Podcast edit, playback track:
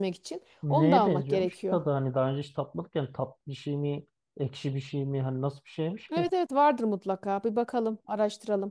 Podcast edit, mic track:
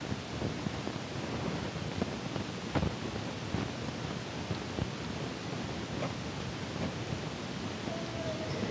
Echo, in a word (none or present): none